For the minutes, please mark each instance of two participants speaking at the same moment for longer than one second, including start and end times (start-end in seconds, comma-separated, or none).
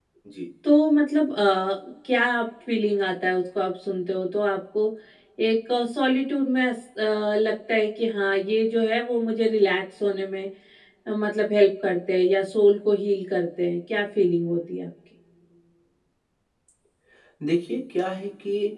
none